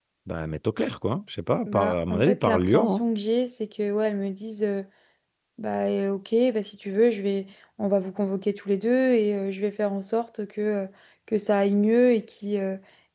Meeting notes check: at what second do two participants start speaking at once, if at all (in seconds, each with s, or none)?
1.7 s